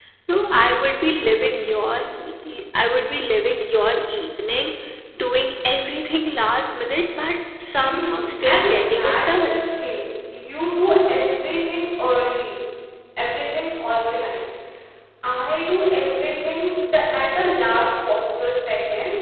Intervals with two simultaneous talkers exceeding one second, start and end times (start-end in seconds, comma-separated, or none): 7.8-9.6